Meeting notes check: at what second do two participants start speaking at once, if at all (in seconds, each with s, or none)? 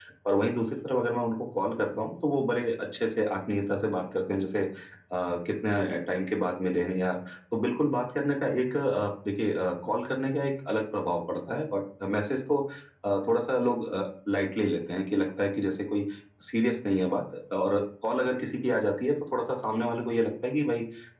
none